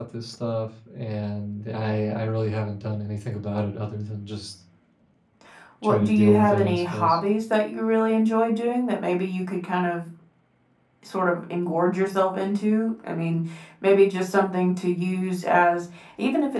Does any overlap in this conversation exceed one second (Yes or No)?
Yes